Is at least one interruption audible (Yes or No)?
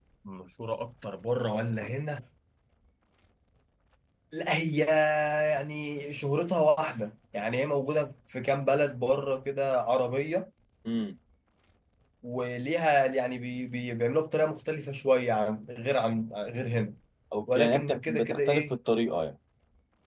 Yes